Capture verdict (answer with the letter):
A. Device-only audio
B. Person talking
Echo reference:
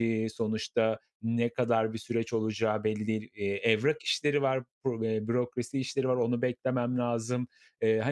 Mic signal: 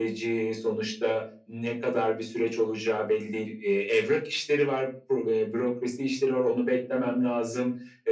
A